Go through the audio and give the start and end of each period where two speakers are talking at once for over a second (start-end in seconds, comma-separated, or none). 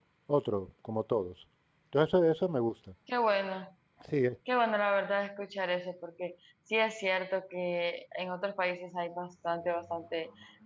none